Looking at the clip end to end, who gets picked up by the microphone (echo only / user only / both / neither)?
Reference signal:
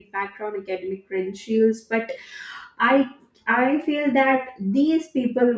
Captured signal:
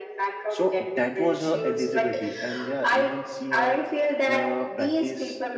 both